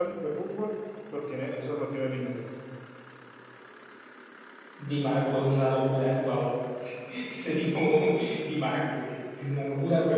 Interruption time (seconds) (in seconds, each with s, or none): none